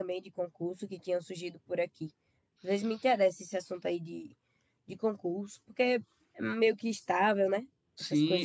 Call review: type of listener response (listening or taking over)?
taking over